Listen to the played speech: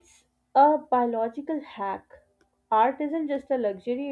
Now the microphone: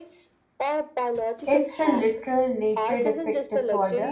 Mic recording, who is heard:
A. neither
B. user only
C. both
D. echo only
C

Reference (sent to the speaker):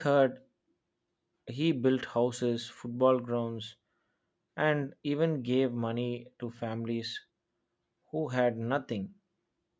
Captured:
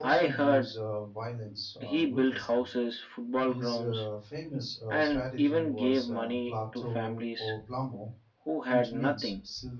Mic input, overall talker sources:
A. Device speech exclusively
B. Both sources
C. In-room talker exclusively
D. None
B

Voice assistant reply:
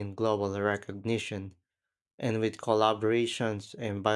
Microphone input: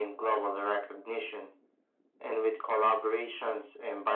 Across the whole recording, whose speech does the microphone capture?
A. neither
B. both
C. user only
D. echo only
D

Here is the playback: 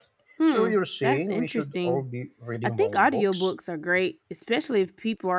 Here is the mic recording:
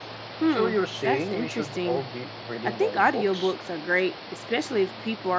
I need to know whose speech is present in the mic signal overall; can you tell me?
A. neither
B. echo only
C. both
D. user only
B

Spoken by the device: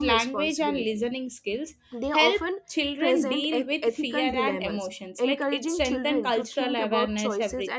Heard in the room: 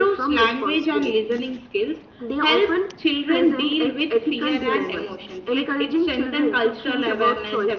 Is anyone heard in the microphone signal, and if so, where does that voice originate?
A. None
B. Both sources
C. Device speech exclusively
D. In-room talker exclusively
C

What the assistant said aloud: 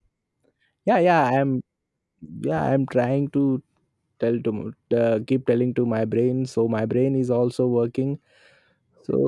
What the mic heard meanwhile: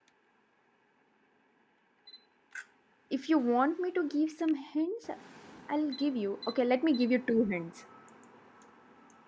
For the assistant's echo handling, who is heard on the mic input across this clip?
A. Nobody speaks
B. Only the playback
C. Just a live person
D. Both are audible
C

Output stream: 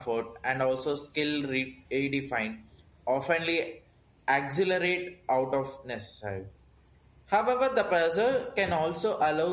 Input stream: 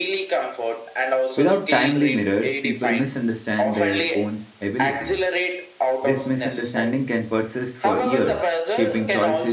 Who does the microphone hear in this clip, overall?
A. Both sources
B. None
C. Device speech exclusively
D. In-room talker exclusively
A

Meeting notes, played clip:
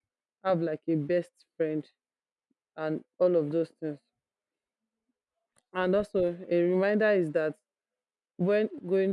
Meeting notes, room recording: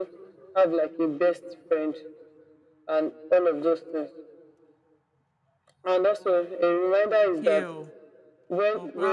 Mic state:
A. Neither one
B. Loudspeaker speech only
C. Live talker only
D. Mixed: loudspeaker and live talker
D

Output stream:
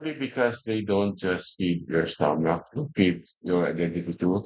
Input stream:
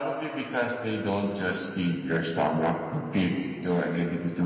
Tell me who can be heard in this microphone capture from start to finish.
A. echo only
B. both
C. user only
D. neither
A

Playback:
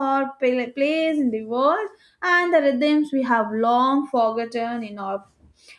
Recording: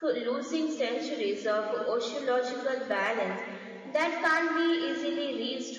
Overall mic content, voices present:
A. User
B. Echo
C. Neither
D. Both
A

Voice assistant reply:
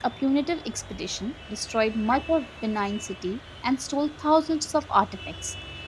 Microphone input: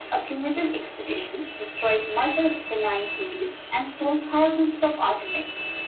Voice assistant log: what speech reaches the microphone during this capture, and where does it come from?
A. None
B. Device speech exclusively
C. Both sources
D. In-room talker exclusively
B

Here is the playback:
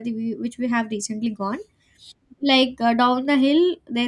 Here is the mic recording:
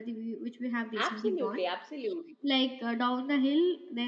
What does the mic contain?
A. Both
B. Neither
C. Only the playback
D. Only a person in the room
A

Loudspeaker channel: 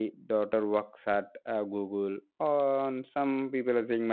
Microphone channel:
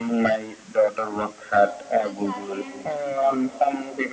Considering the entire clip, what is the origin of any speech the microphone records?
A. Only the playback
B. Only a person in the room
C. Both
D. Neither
C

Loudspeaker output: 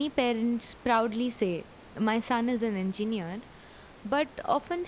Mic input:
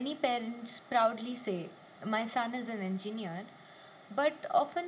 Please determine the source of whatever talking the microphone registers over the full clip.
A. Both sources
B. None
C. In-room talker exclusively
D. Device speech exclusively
D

